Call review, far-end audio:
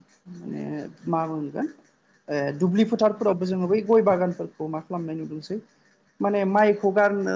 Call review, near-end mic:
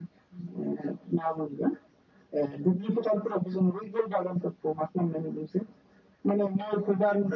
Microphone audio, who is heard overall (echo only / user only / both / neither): echo only